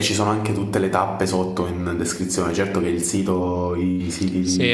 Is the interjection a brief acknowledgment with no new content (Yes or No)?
No